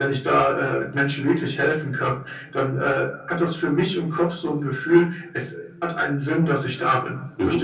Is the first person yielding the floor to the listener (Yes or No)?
Yes